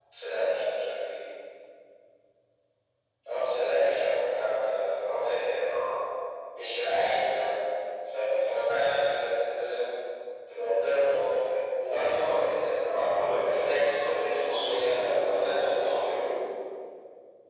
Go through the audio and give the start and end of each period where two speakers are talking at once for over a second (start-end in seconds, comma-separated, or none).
13.4-16.0